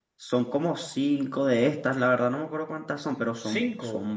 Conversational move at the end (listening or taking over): listening